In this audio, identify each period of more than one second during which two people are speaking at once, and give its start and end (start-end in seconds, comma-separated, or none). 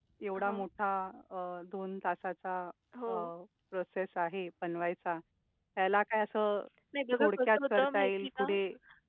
7.2-8.6